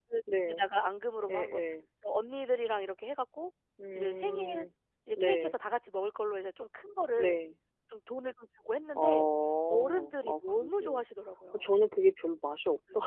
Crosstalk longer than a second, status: present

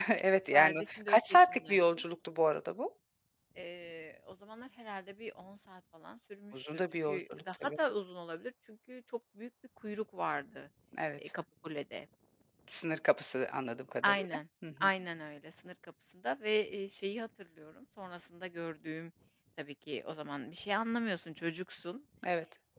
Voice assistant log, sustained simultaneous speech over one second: present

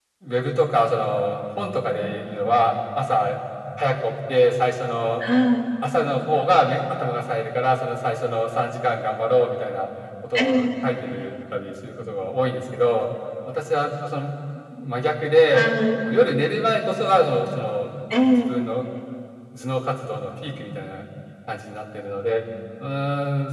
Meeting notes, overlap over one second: none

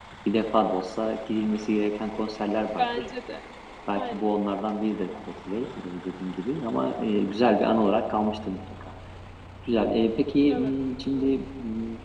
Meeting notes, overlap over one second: none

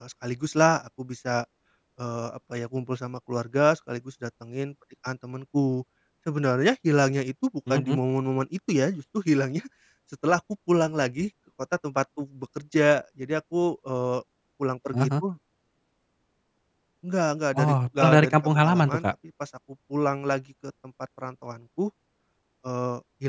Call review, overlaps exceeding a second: present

